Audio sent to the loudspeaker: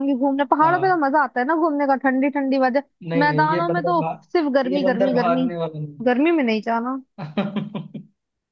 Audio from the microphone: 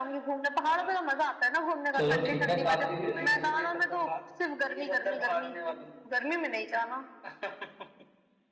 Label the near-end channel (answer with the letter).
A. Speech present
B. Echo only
A